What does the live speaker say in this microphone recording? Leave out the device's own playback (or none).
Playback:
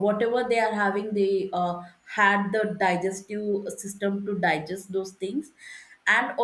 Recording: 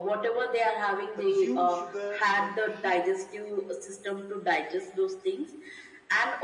consumed sugar with tea